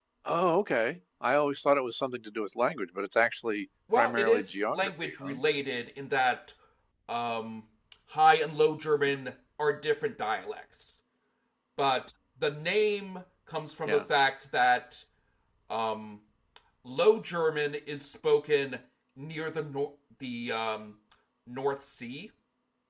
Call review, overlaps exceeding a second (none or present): present